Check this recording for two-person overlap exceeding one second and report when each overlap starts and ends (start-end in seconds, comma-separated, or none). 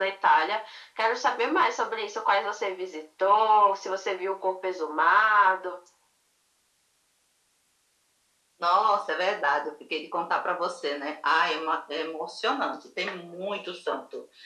none